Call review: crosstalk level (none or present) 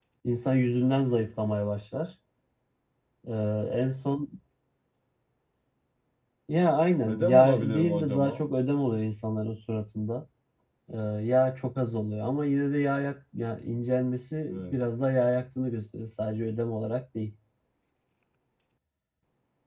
present